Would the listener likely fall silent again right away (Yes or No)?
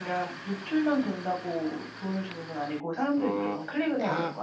No